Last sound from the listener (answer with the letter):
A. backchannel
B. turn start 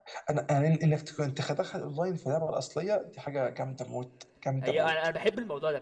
B